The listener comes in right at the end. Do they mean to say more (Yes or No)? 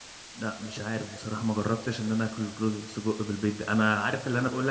No